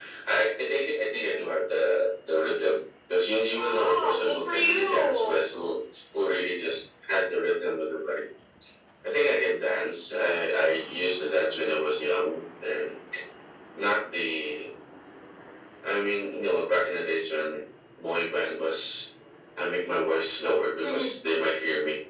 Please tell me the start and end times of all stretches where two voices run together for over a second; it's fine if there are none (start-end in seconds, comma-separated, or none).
3.6-5.4